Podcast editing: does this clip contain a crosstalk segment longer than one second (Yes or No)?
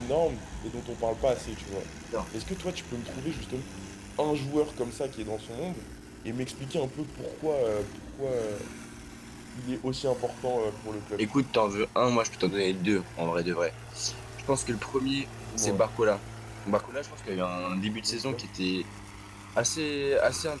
No